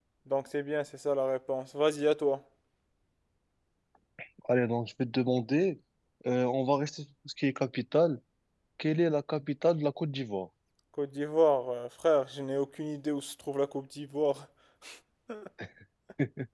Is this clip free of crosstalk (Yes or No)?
Yes